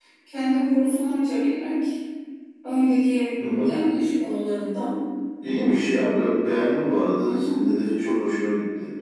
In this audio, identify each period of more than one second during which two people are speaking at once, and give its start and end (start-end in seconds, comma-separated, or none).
none